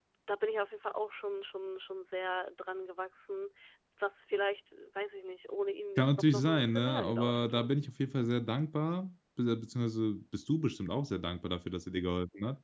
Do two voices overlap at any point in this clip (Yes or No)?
Yes